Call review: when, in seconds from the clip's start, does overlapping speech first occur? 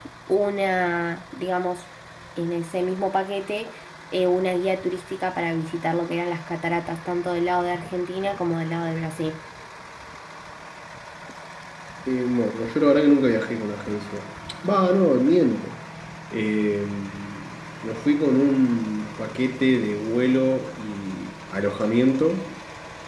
none

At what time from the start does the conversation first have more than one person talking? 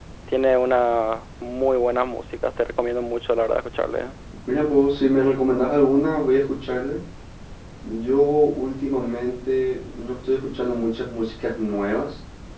none

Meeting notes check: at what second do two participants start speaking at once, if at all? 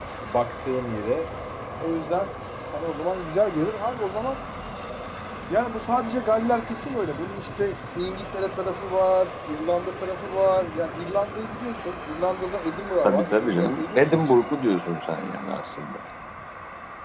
13.0 s

